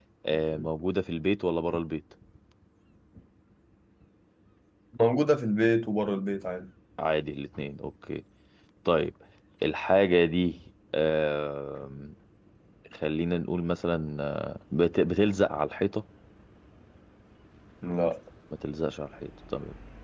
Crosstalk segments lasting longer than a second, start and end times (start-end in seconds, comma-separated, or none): none